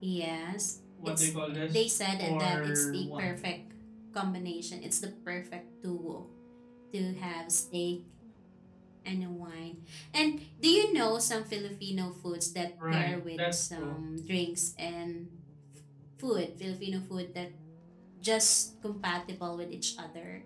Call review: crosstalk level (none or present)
present